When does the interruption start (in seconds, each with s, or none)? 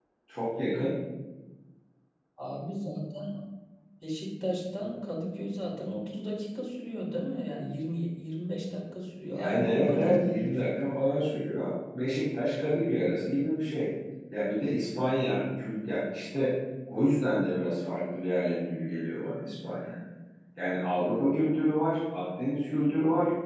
9.3 s